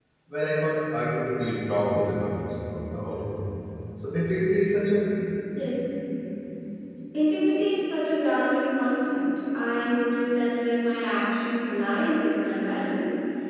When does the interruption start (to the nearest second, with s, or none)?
none